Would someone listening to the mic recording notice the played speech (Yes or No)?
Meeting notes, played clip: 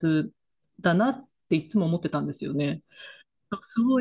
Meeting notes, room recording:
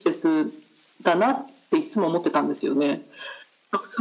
Yes